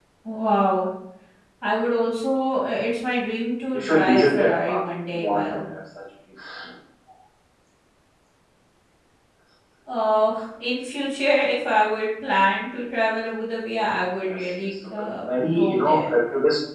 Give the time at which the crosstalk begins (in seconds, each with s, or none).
3.7 s